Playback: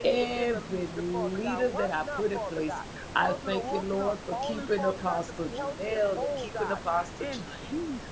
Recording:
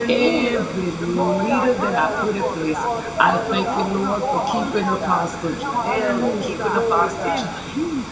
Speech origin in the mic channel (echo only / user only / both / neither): both